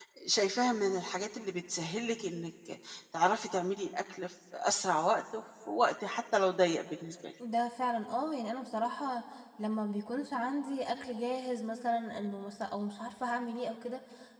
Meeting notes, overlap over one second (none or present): none